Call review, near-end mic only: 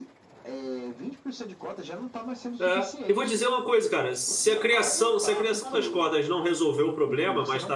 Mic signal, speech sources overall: both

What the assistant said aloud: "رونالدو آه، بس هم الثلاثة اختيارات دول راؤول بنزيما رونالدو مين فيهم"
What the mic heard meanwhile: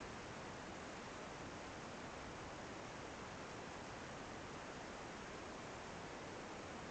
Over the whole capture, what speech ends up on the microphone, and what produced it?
neither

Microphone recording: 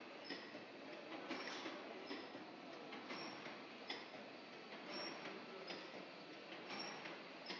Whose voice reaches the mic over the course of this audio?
neither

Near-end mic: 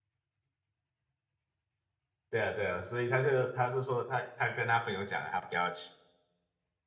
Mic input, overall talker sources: user only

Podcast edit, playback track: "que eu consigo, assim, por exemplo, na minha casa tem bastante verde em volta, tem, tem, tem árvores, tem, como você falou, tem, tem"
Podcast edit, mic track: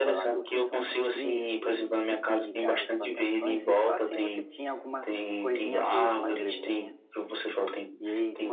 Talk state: both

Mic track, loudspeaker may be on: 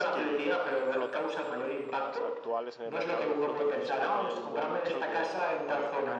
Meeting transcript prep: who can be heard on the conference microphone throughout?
both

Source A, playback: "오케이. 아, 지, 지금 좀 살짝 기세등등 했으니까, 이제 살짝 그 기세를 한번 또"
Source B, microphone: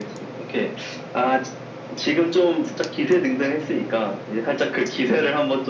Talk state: echo only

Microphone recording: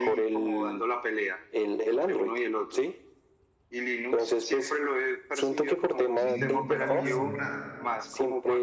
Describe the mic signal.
both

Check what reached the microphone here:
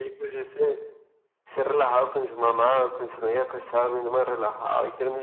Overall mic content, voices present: echo only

